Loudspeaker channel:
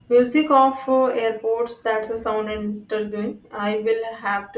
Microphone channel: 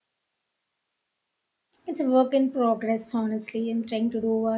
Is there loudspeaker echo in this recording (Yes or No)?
No